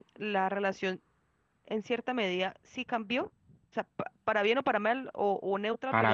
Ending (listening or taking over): listening